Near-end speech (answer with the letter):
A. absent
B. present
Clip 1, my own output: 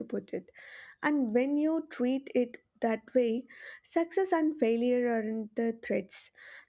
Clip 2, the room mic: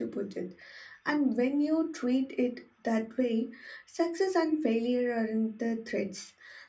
A